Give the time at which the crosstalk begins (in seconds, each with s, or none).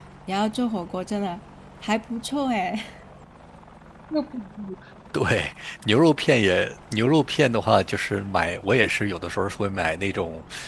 none